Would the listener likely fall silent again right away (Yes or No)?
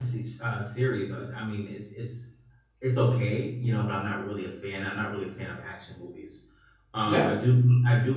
Yes